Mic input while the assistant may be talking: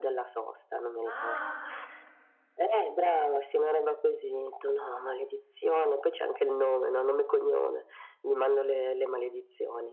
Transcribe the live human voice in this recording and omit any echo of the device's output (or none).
Ah, oka